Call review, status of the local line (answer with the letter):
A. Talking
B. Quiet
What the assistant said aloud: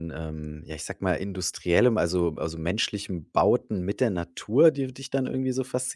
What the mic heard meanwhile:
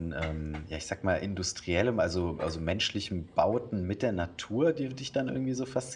B